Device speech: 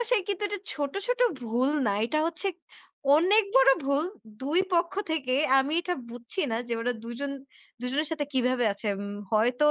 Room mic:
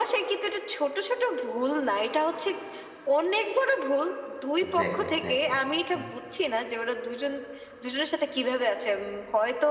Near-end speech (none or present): present